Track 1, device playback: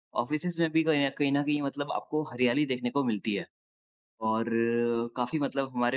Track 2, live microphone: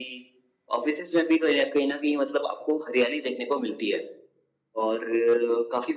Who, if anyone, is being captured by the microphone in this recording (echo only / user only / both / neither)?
echo only